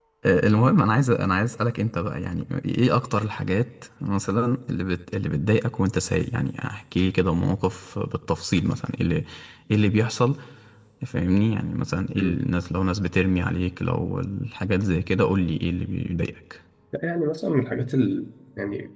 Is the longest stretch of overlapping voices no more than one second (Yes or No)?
Yes